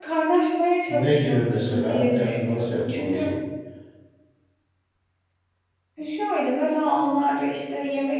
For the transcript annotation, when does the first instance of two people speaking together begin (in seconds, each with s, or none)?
0.9 s